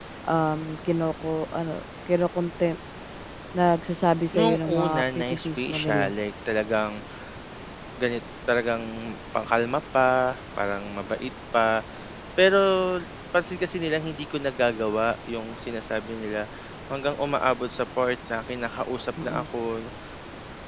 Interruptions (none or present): present